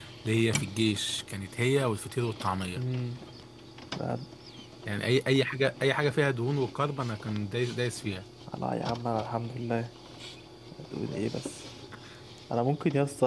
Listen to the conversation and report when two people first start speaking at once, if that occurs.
none

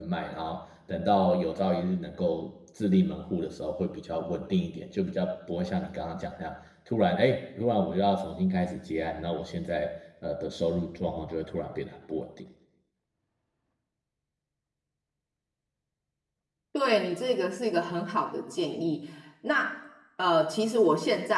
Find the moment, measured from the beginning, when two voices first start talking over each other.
none

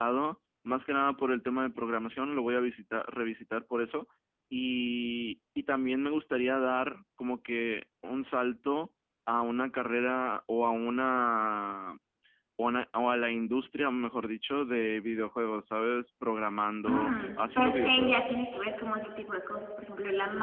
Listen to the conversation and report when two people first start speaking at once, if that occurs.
16.9 s

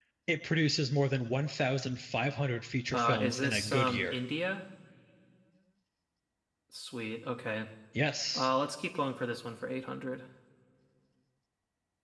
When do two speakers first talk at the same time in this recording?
2.9 s

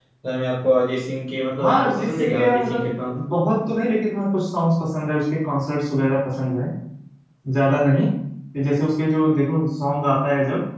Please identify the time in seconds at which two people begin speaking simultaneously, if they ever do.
1.6 s

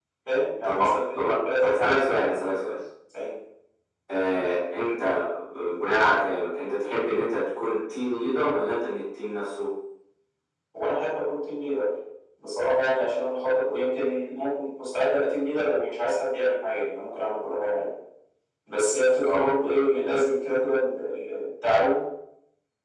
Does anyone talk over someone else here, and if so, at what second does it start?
0.6 s

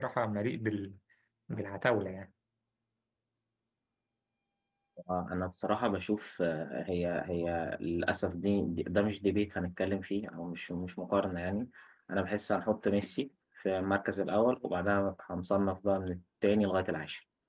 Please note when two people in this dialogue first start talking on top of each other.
none

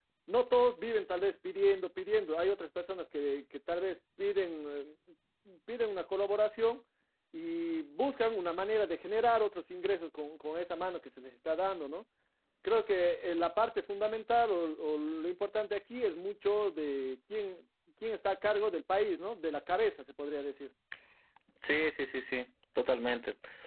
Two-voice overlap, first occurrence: none

